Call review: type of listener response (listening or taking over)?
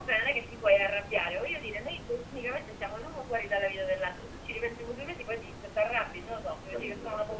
taking over